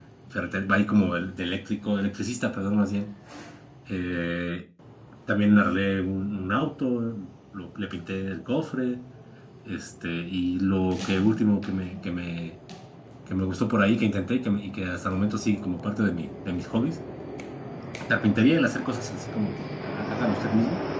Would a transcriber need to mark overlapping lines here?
No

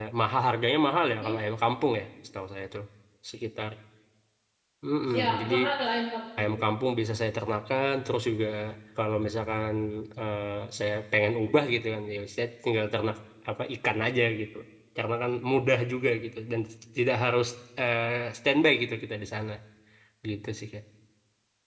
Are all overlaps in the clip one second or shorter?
Yes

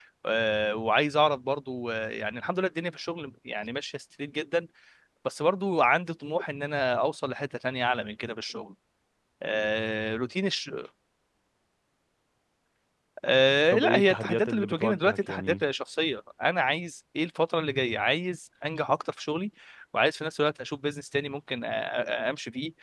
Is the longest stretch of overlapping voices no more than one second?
No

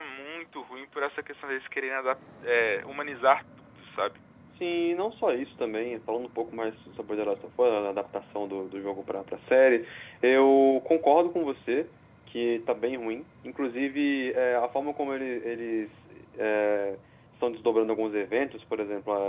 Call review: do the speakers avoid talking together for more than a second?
Yes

